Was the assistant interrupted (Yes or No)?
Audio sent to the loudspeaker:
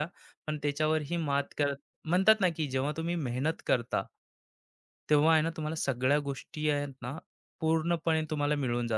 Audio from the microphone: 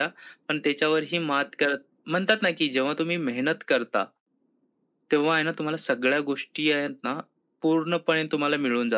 No